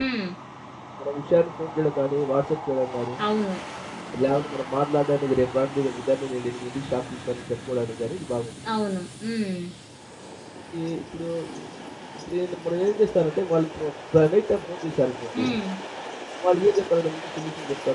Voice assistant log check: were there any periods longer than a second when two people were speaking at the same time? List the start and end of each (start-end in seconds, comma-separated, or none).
none